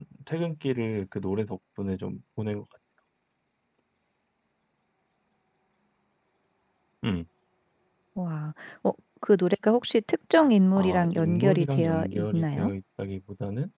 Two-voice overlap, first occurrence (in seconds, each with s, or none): 10.8 s